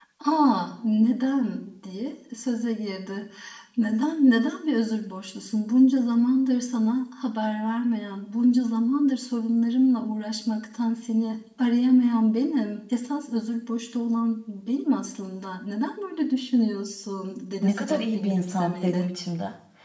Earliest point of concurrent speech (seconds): 17.6 s

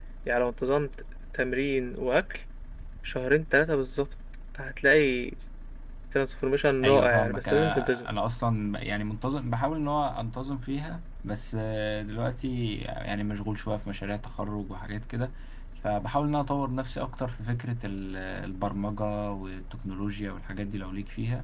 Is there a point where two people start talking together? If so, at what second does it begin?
6.8 s

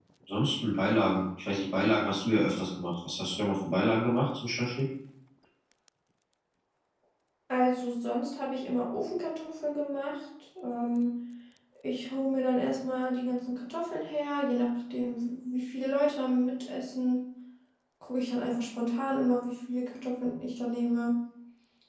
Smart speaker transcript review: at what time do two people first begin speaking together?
none

